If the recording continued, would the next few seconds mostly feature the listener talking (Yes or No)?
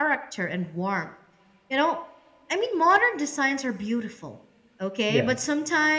No